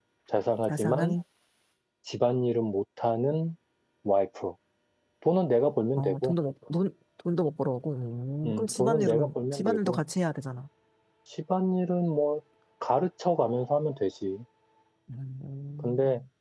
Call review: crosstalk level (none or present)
present